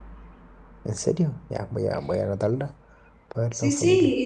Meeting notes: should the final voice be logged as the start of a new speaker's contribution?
Yes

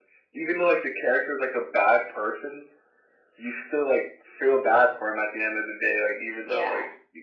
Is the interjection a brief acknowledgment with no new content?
Yes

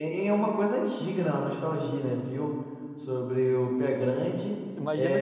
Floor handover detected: Yes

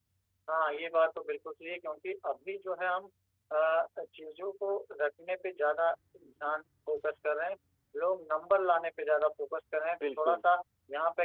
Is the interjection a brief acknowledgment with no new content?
Yes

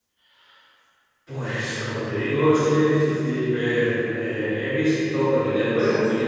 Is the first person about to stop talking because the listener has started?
No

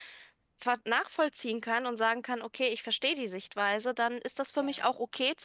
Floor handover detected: No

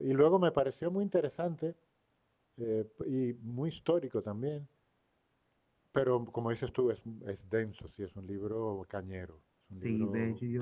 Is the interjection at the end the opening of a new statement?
Yes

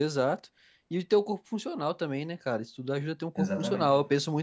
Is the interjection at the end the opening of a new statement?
No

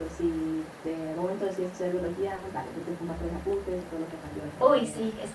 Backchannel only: No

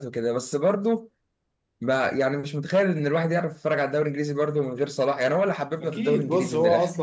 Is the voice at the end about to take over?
Yes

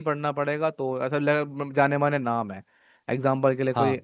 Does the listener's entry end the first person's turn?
No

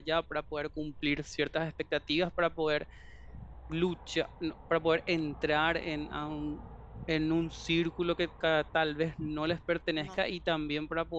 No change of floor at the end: Yes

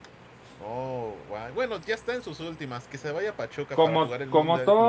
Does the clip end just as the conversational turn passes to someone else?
Yes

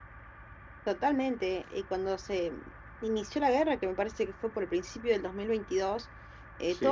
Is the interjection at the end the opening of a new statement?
No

